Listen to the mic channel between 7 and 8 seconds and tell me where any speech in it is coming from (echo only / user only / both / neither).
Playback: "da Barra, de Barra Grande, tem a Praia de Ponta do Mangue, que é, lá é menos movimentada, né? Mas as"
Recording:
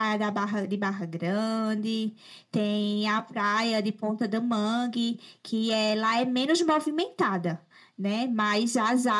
echo only